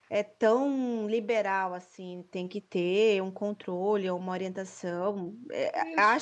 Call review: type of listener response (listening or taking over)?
listening